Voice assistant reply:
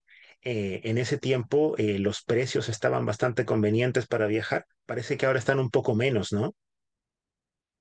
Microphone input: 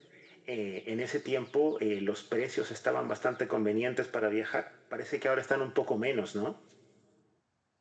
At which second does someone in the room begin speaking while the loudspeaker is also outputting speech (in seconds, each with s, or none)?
none